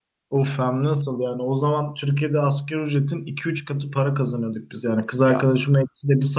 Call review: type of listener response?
listening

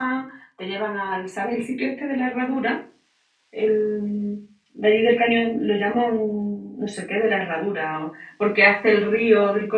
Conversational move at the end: listening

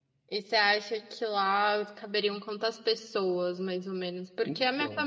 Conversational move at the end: listening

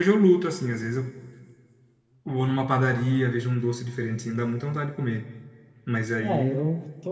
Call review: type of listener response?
taking over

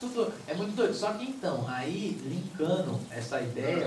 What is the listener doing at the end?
listening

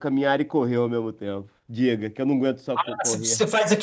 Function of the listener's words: taking over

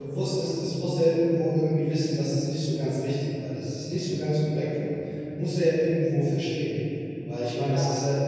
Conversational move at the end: listening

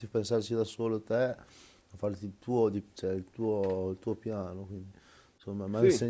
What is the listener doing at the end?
listening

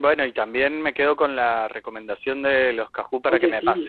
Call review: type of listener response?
taking over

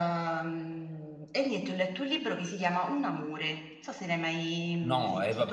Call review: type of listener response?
taking over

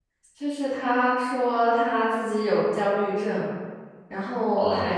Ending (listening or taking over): listening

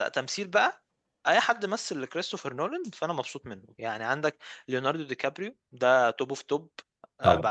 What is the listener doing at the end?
listening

